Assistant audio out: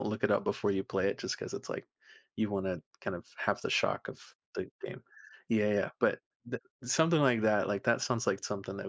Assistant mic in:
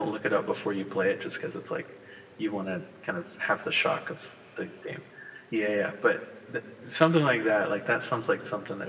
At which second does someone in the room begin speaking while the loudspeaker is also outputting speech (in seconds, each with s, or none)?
none